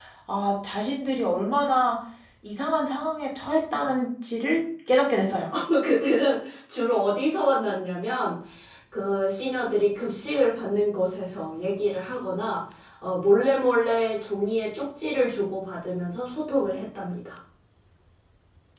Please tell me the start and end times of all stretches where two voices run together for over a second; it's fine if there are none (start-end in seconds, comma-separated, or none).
none